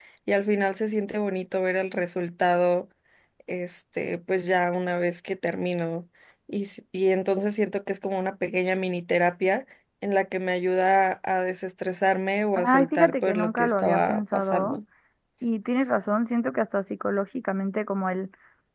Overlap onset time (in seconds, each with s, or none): 12.6 s